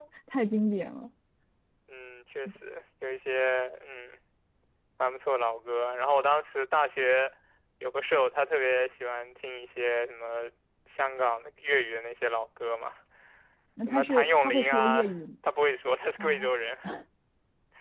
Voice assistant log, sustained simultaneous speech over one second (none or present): present